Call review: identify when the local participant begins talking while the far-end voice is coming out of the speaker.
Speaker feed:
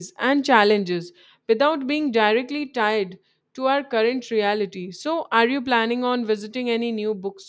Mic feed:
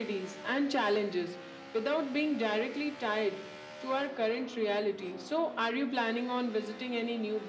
none

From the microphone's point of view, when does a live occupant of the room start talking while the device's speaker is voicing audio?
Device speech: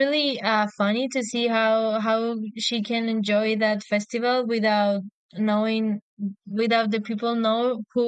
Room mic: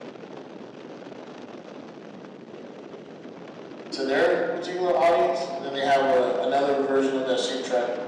3.9 s

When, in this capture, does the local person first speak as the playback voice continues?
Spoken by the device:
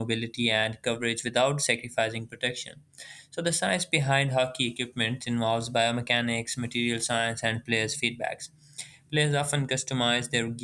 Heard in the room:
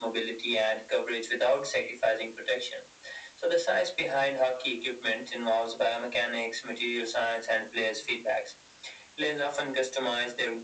none

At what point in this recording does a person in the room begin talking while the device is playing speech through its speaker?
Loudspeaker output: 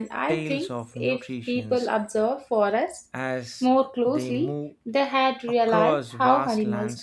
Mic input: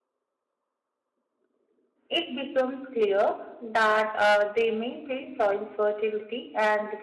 2.1 s

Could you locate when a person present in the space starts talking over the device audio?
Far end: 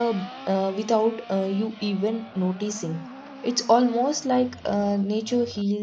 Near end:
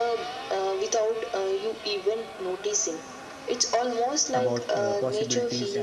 4.3 s

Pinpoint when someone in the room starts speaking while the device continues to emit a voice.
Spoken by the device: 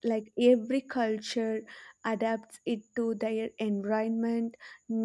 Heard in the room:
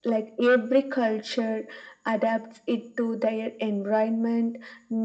none

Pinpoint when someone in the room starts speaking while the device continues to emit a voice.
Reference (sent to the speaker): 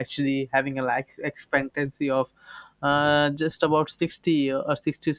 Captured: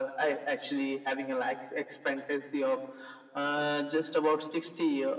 none

